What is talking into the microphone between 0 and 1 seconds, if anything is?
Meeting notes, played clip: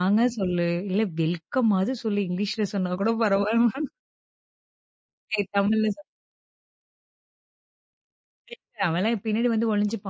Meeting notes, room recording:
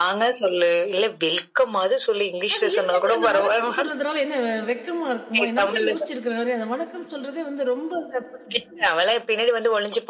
echo only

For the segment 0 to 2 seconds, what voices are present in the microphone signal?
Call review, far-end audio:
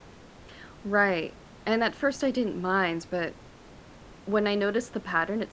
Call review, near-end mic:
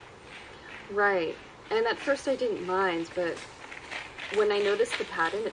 echo only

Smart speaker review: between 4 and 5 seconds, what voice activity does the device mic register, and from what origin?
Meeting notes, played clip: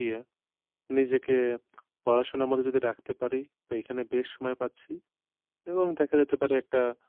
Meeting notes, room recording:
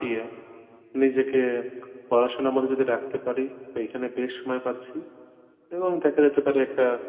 echo only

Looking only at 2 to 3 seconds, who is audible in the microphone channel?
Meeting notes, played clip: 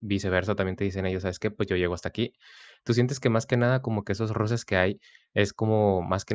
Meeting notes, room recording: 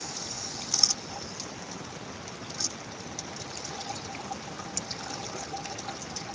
neither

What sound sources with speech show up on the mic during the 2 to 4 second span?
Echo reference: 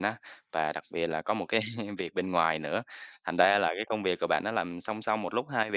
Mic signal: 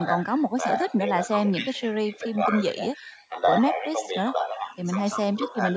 both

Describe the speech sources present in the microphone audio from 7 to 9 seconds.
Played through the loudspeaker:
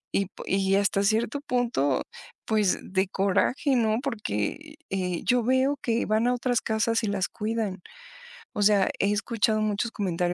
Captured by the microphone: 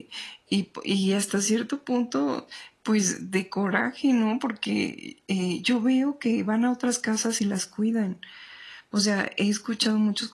echo only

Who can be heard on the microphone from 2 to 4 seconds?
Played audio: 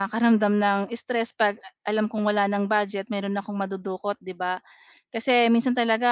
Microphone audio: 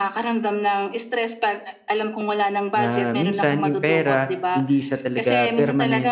both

